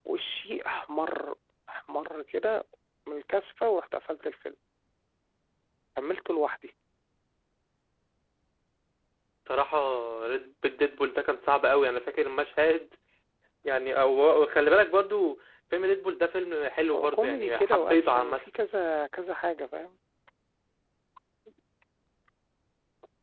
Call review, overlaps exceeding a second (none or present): present